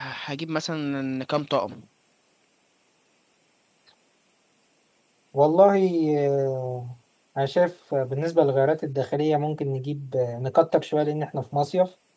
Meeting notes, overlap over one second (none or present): none